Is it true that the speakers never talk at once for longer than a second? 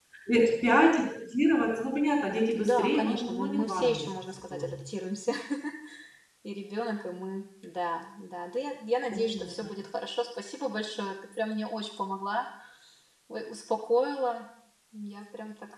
No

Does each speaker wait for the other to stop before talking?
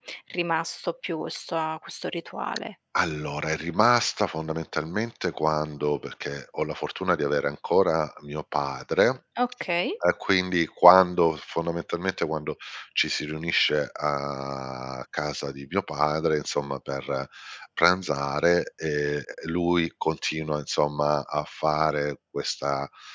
Yes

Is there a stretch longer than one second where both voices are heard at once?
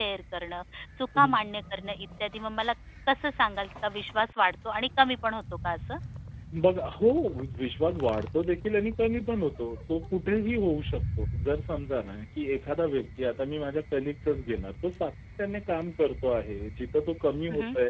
No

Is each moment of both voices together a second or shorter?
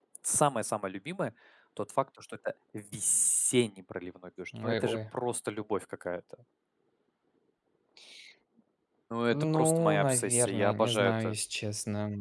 No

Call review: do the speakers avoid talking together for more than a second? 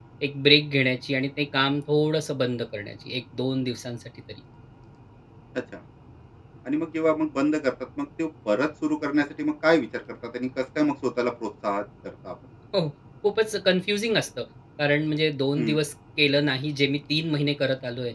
Yes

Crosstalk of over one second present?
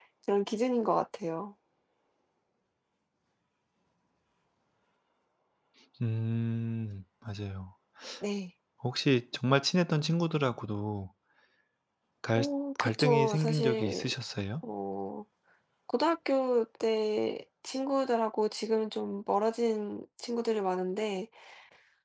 Yes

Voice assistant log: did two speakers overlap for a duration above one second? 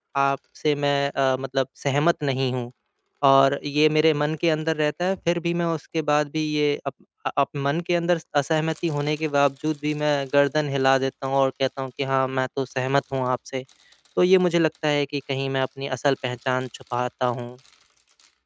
No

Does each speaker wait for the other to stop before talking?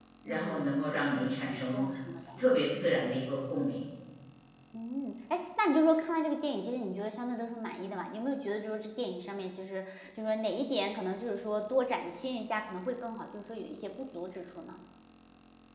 No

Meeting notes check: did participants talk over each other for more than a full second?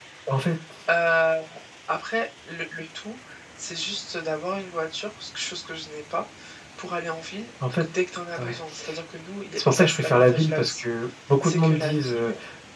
Yes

